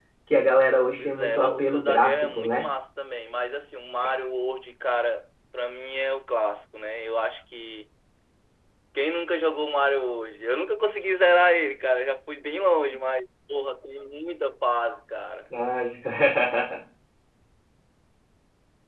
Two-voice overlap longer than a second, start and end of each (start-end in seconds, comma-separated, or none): 1.0-2.6